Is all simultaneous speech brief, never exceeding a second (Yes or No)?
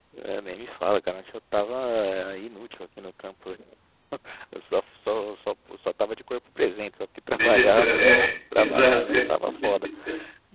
No